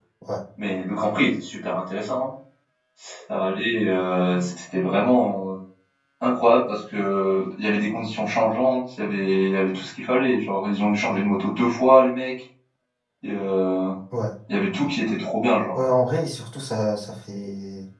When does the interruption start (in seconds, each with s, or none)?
none